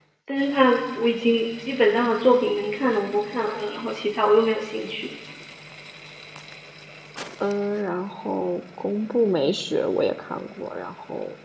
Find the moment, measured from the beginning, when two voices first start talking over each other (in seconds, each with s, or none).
none